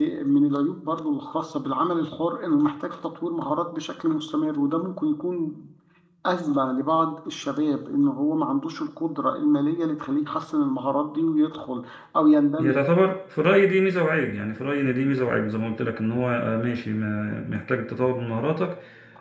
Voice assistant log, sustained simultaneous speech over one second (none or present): none